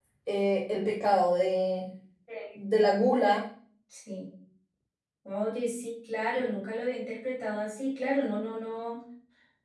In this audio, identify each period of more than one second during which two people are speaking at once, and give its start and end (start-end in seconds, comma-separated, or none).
none